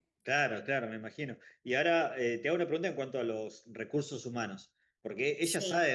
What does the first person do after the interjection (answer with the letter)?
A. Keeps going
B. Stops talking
A